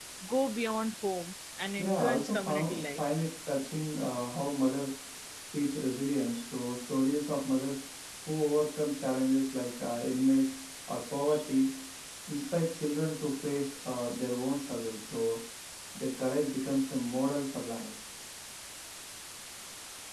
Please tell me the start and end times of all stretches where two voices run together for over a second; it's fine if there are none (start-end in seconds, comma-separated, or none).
1.8-3.0